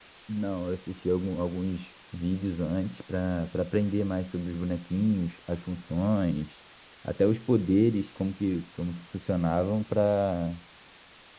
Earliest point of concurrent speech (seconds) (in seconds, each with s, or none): none